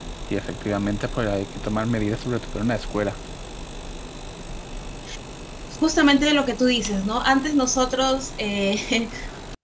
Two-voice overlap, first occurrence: none

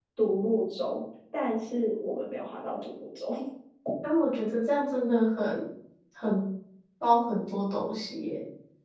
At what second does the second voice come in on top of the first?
none

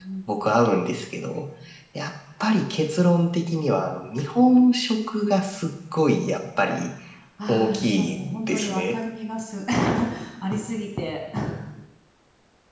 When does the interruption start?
7 s

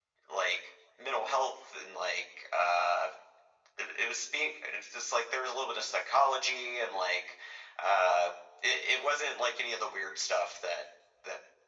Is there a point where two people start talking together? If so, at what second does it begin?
none

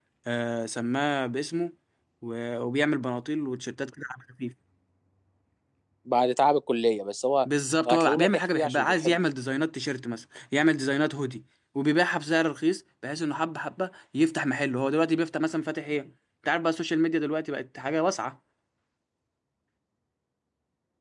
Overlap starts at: 8 s

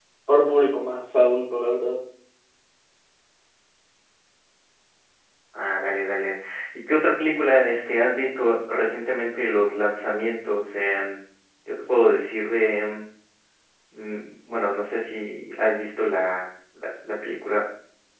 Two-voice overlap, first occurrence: none

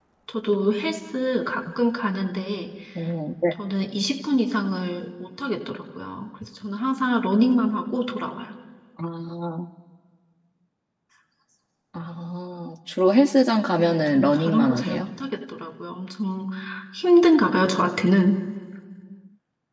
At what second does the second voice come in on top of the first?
14 s

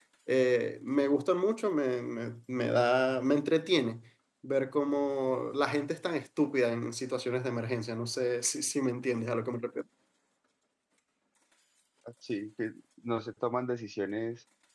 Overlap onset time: none

